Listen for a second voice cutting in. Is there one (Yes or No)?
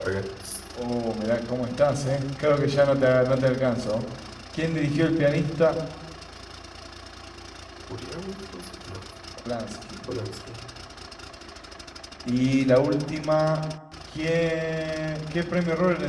No